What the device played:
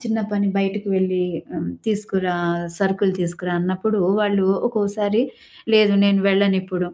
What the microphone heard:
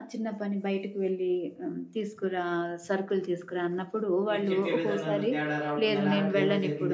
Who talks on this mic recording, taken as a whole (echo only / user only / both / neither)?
both